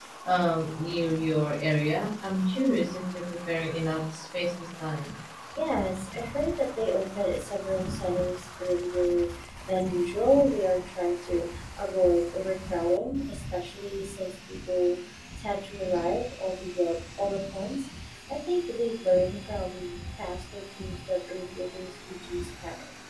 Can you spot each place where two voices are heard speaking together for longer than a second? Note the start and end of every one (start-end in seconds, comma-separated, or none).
none